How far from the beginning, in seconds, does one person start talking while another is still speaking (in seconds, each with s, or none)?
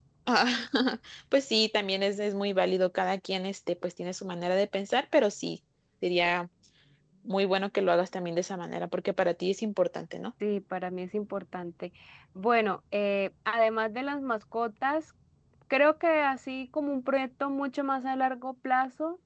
none